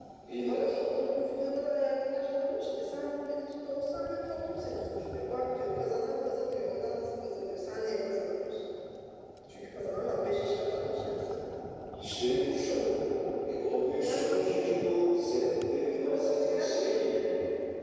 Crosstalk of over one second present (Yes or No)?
Yes